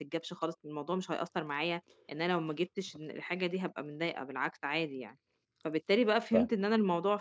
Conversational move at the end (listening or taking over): listening